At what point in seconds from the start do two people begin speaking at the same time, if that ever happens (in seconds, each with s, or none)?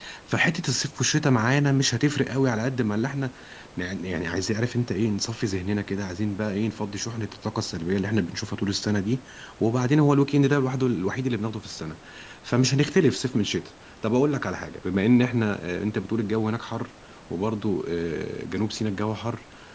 none